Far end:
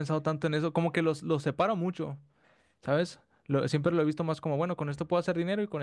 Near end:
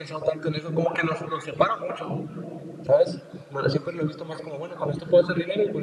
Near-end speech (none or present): none